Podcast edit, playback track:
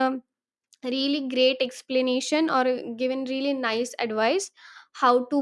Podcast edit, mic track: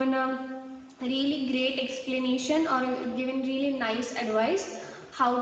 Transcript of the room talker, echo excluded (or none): none